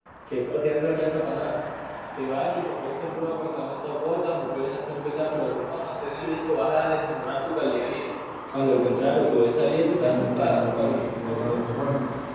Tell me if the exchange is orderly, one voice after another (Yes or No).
No